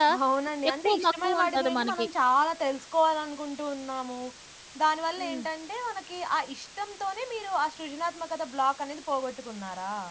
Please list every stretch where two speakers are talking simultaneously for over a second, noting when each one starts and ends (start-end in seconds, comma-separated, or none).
0.8-2.1